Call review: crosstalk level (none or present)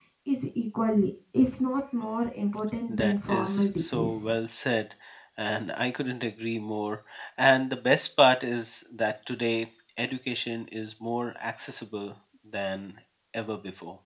present